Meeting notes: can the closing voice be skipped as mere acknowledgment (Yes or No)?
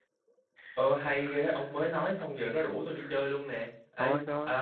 Yes